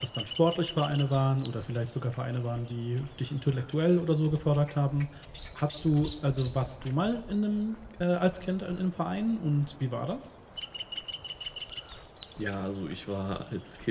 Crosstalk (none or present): none